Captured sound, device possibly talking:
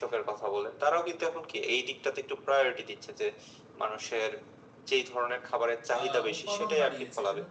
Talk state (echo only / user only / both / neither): both